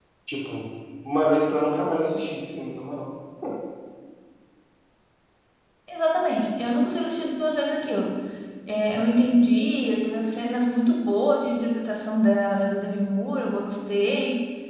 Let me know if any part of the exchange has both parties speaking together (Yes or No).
No